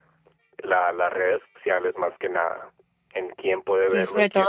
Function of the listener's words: taking over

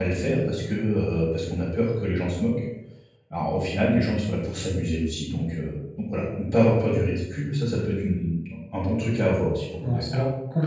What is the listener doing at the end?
taking over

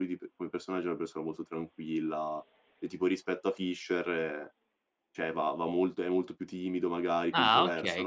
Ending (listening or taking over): taking over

